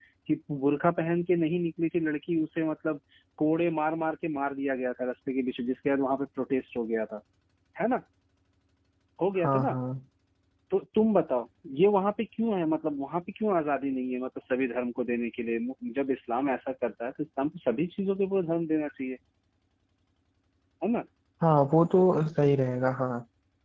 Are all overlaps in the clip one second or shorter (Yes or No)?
Yes